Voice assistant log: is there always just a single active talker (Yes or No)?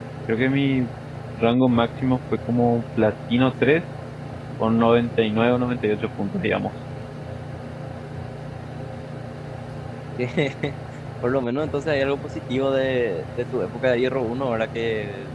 Yes